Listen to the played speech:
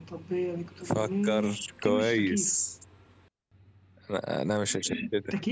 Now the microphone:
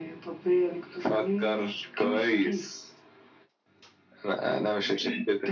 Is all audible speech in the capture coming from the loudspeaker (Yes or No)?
Yes